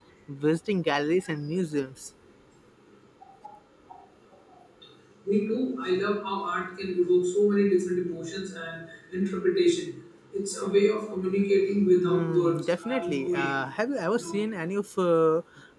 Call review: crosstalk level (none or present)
present